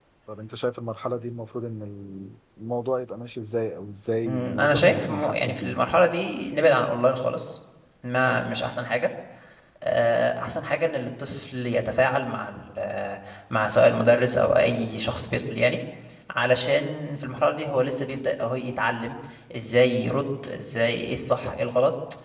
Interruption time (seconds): 4.2 s

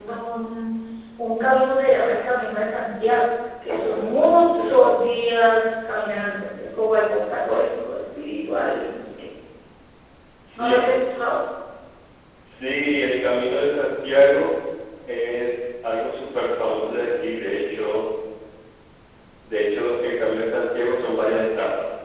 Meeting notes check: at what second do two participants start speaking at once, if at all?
3.7 s

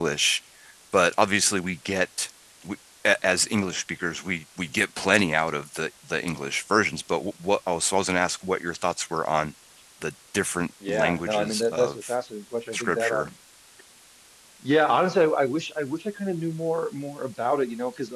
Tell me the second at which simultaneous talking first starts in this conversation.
10.9 s

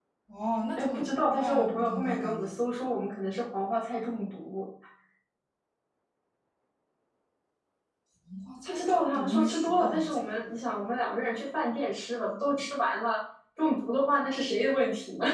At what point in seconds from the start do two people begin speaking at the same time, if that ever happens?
0.7 s

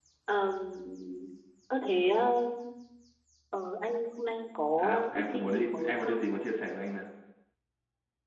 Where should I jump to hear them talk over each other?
4.8 s

